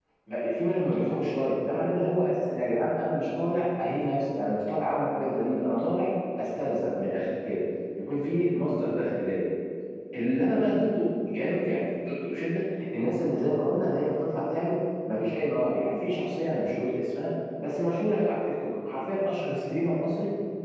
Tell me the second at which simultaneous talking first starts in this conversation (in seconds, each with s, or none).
none